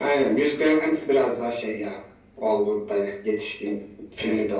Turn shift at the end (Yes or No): No